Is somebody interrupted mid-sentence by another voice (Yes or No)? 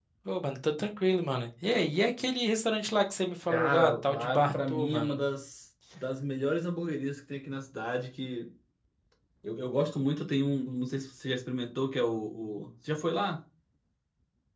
Yes